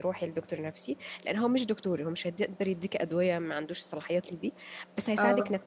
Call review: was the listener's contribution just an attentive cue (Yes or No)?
Yes